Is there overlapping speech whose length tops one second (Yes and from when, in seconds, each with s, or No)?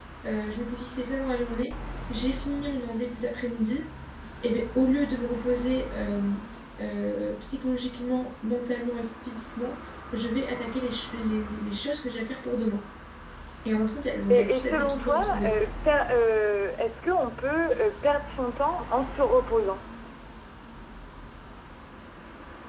Yes, from 14.3 s